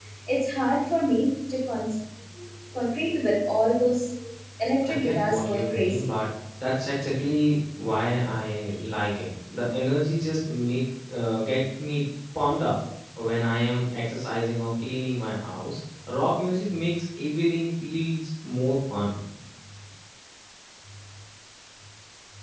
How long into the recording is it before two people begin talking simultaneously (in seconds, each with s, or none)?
4.9 s